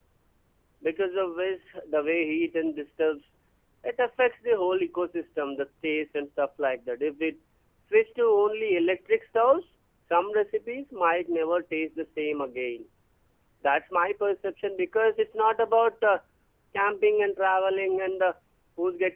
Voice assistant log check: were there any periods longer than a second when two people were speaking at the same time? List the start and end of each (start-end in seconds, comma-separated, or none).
none